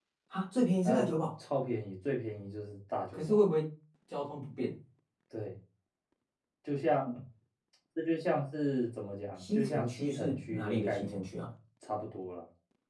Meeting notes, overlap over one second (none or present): present